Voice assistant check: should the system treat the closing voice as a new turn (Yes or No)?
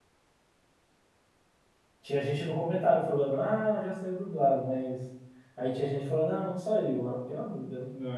Yes